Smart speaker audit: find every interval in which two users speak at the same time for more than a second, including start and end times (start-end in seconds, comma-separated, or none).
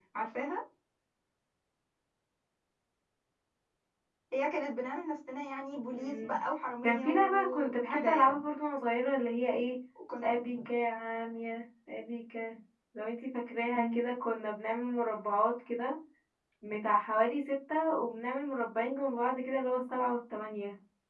6.8-8.4